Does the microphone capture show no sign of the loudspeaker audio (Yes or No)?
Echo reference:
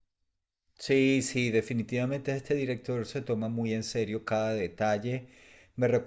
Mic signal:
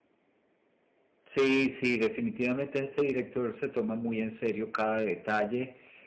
No